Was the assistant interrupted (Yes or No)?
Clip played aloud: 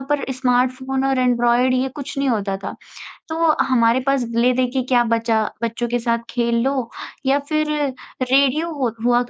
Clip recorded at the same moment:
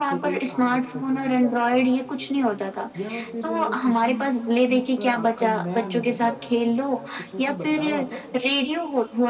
Yes